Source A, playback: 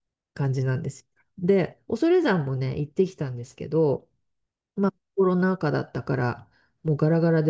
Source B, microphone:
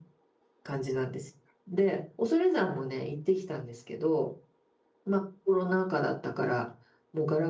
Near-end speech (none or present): none